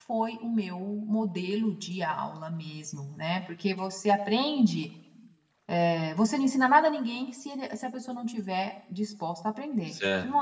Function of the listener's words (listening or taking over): taking over